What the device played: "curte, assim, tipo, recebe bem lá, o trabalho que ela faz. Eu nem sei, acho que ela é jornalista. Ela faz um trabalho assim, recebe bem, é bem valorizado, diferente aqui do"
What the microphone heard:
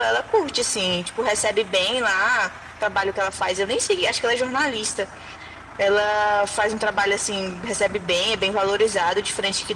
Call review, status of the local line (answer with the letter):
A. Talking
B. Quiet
B